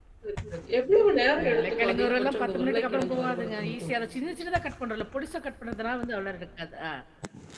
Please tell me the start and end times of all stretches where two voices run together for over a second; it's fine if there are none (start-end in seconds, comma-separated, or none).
1.4-3.9